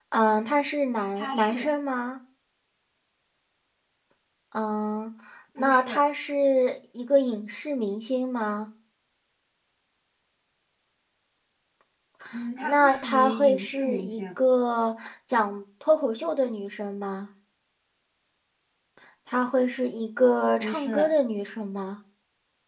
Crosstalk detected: Yes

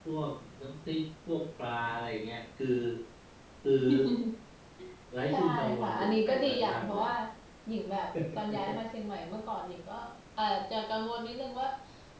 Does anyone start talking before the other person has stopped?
Yes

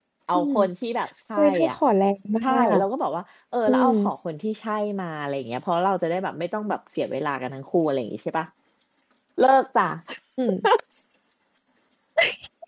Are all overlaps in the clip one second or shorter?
Yes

